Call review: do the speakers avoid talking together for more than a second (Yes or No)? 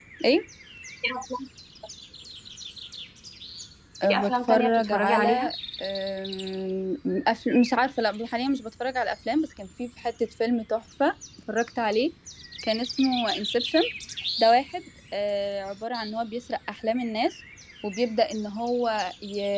No